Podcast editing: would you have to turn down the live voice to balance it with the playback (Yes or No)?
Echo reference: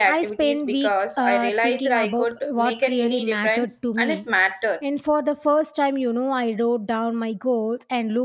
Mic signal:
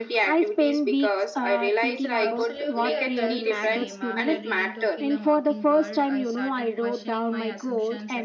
No